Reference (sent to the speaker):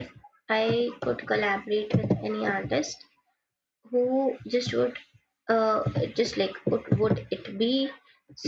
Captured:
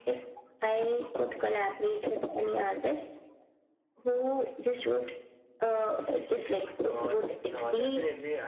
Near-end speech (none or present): present